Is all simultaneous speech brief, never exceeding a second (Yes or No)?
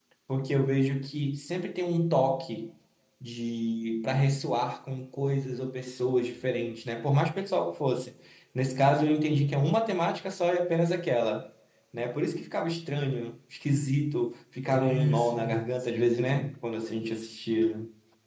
No